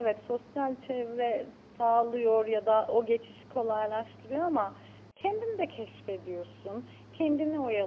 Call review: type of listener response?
listening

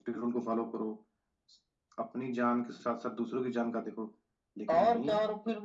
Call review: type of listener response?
taking over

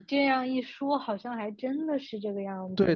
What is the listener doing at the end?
taking over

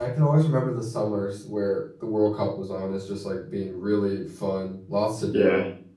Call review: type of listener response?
listening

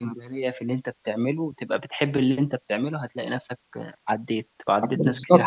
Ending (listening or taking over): taking over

